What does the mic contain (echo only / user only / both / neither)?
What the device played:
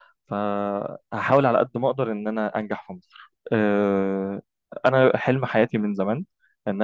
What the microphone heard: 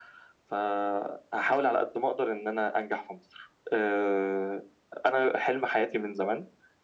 echo only